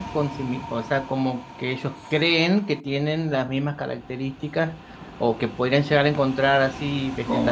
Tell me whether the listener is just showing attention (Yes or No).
Yes